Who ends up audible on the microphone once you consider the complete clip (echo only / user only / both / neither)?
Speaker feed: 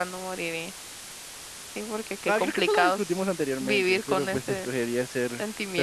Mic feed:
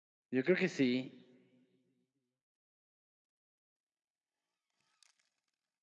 user only